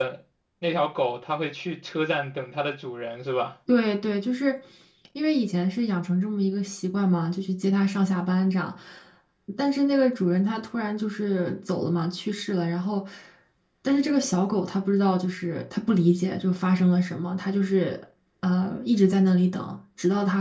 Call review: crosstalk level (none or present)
none